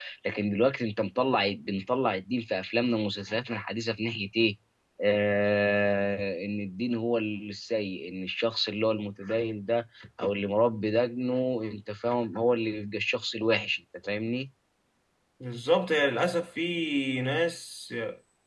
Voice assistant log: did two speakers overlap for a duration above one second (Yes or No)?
No